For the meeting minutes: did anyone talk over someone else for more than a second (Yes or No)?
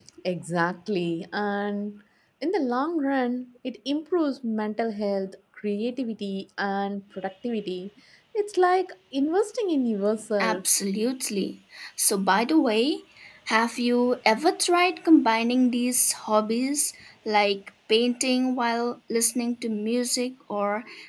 No